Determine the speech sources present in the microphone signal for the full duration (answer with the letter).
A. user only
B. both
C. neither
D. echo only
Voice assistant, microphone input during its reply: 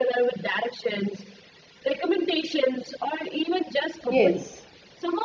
B